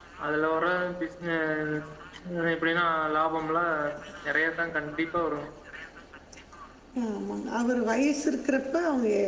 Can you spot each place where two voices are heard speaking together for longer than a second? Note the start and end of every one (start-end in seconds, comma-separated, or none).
none